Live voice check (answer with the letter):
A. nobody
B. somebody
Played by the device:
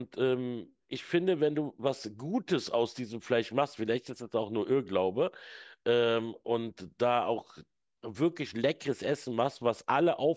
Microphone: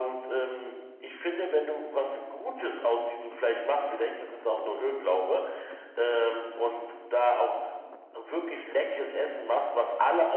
A